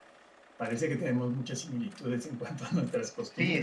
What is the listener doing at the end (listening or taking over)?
taking over